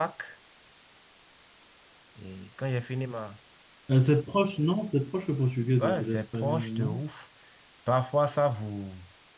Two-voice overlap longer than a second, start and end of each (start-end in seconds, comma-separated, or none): 5.8-7.0